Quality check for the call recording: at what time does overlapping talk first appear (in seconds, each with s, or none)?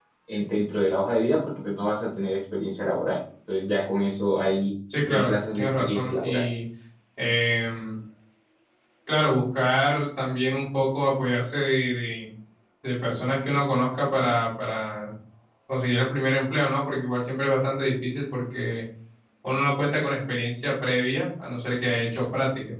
4.9 s